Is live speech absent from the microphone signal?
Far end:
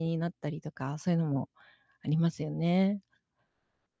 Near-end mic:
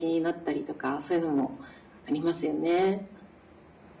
Yes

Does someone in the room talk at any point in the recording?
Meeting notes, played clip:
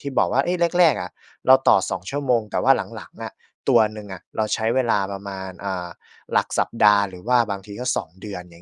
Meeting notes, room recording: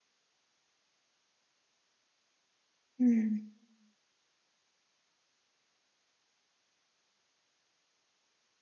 Yes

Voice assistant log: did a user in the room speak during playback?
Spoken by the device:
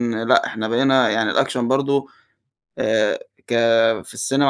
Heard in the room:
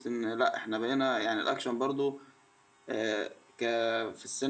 No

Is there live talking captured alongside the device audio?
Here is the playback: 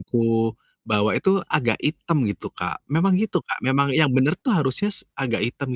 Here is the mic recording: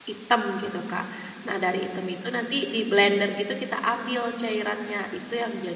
Yes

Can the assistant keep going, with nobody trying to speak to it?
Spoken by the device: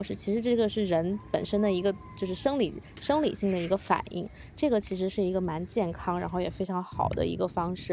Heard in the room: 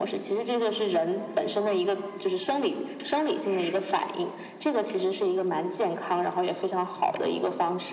Yes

